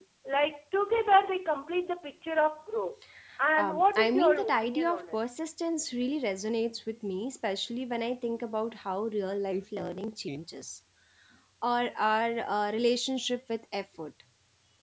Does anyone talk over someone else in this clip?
Yes, from 3.6 s

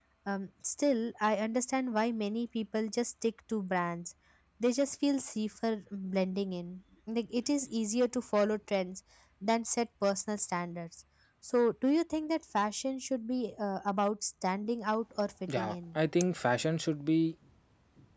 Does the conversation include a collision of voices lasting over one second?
No

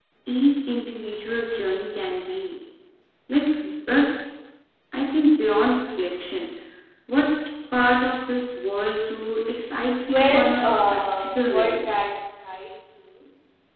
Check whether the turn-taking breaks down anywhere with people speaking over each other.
Yes, from 10.1 s

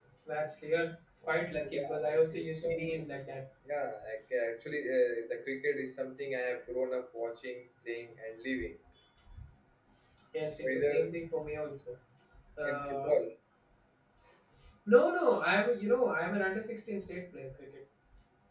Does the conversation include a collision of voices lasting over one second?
Yes, from 1.7 s

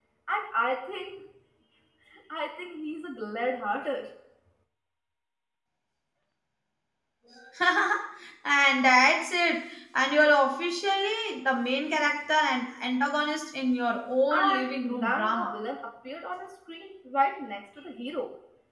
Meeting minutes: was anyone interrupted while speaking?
Yes, from 14.3 s

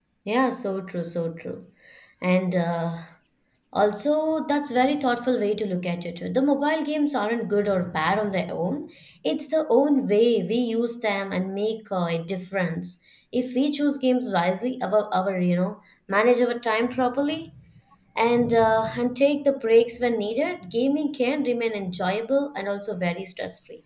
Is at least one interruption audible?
No

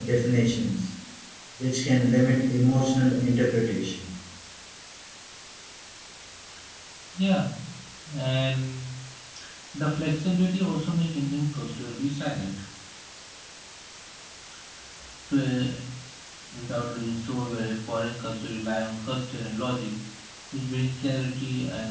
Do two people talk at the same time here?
No

